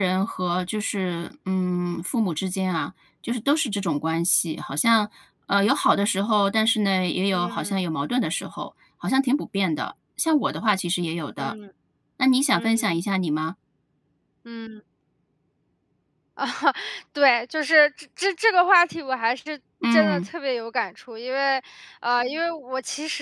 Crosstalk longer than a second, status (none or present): none